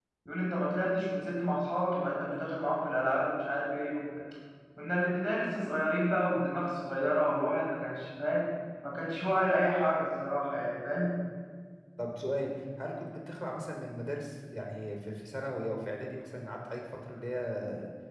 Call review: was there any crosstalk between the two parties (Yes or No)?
No